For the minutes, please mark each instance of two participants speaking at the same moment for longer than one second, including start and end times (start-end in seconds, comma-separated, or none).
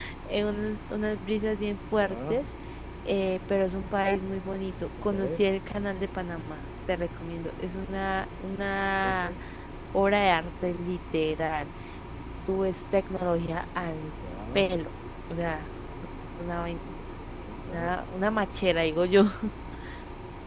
none